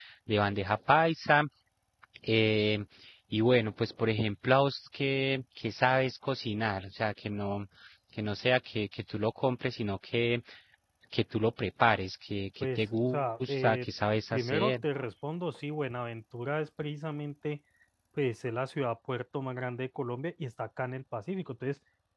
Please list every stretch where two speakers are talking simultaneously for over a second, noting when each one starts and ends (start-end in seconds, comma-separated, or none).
12.6-13.9